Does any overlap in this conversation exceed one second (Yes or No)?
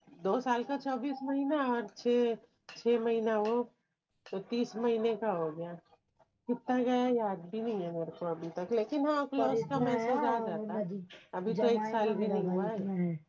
Yes